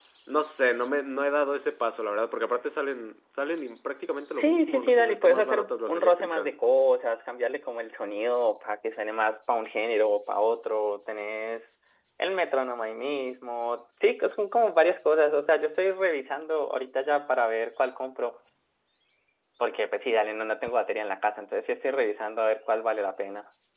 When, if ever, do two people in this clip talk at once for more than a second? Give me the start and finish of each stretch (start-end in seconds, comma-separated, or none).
4.4-6.5